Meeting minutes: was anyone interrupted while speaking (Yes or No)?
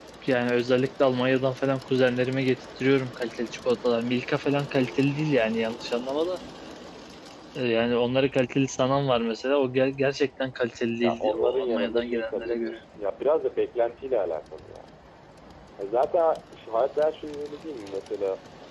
Yes